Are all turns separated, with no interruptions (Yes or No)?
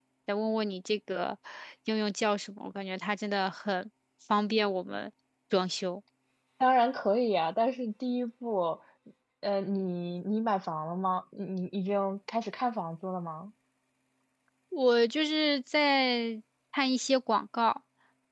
Yes